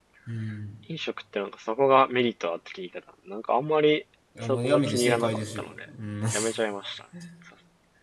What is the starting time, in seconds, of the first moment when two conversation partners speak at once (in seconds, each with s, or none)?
4.4 s